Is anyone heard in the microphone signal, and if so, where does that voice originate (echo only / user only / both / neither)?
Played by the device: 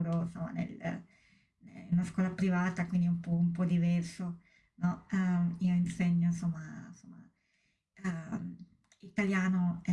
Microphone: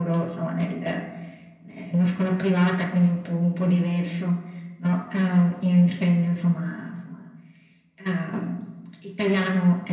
echo only